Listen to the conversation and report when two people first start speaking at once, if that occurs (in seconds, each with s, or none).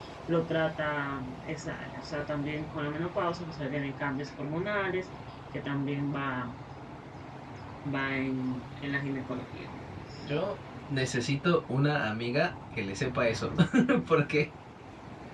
none